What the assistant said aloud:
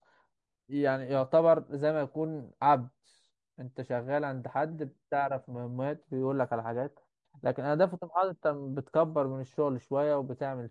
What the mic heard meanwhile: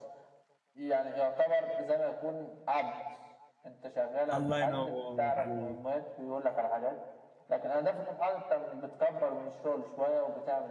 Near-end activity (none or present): present